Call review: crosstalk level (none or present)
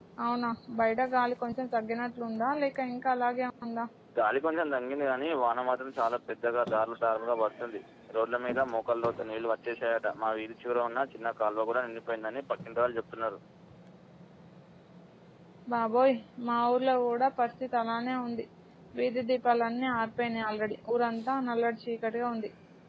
none